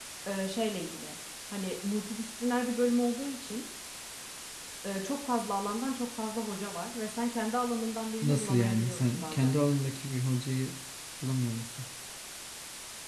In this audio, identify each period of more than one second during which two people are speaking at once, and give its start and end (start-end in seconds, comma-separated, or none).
8.2-9.5